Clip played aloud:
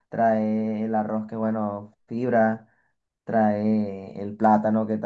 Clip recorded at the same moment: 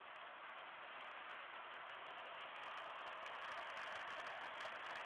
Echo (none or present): none